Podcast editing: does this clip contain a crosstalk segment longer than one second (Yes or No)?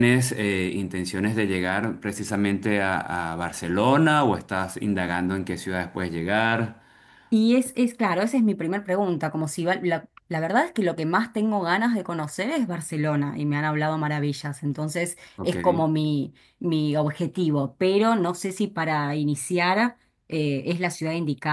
No